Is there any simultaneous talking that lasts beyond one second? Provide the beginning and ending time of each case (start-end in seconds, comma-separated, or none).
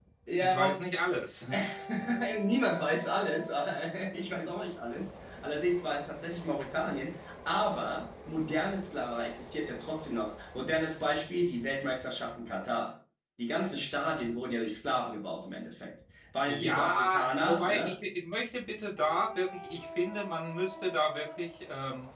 16.4-17.9